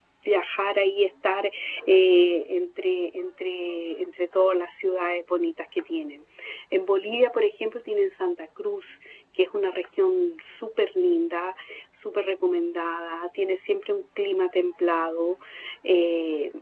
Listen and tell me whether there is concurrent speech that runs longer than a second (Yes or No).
No